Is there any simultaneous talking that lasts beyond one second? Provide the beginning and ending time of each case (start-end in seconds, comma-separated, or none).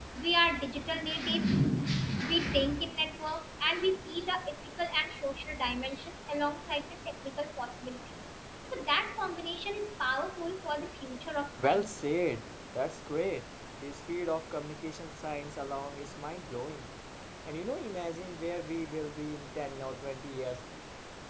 none